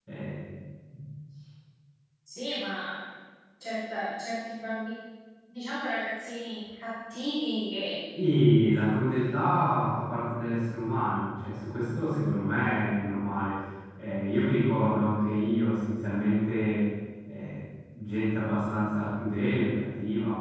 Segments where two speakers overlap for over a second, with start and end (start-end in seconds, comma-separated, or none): none